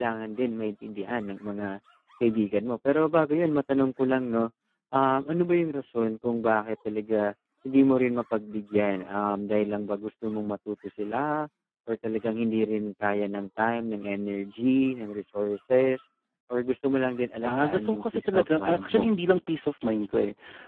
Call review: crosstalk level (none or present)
present